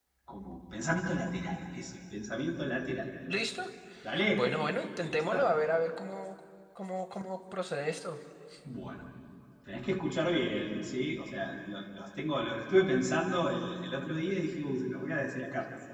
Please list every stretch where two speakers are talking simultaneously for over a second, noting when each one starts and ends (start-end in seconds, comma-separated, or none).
none